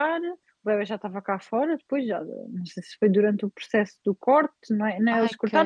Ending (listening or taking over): listening